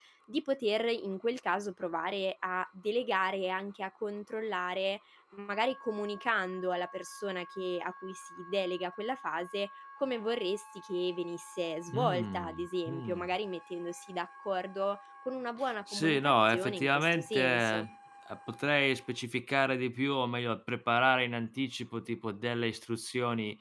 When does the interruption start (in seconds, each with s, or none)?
11.9 s